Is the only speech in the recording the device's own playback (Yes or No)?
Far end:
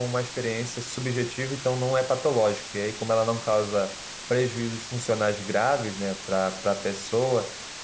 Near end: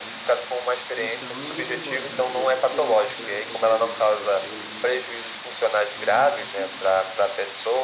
No